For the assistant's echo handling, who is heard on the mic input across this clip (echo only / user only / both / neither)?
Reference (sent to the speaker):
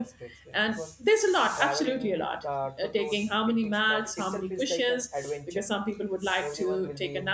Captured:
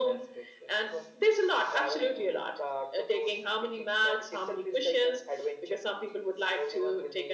echo only